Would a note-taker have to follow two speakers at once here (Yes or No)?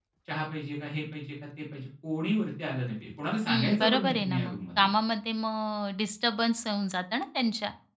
Yes